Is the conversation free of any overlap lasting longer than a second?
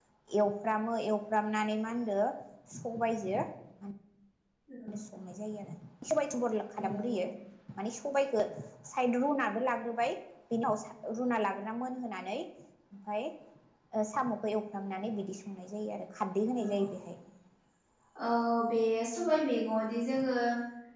Yes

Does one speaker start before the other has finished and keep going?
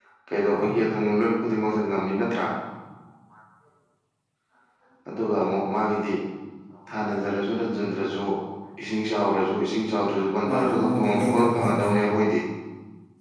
Yes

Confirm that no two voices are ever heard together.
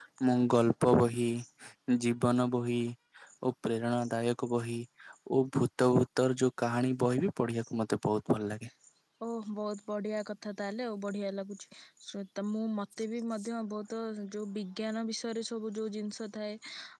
Yes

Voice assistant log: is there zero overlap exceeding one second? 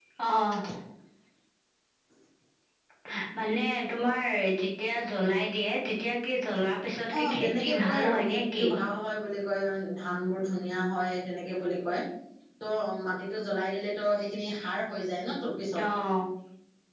No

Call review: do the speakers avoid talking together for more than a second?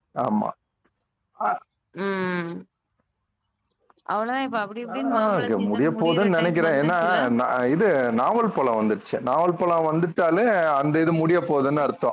No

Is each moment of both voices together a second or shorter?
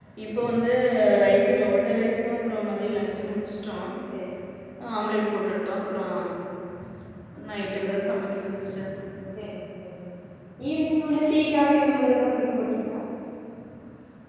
Yes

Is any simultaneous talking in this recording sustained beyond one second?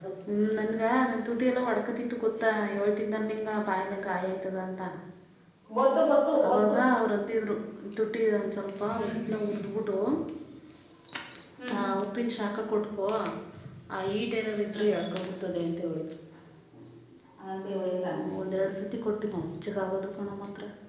No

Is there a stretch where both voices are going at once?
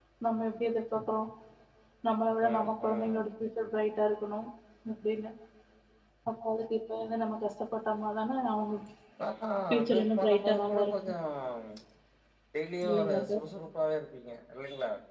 Yes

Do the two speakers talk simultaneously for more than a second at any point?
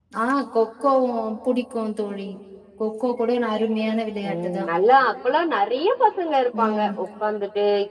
No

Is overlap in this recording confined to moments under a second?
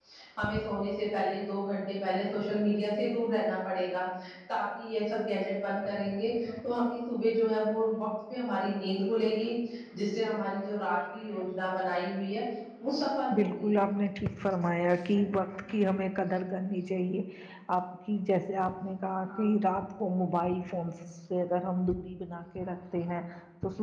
Yes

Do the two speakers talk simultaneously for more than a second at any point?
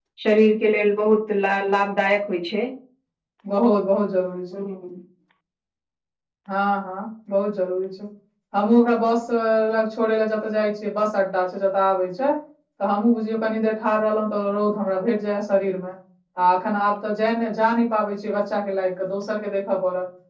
No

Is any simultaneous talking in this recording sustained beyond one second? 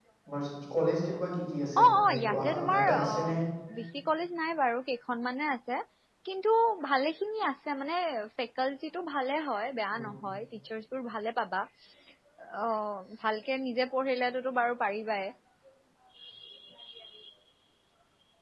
Yes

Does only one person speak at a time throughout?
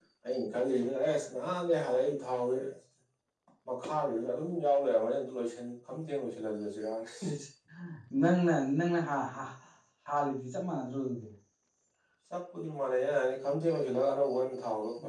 Yes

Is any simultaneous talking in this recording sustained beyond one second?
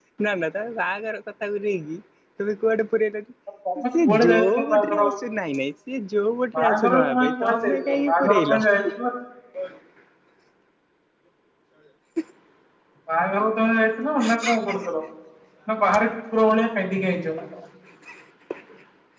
Yes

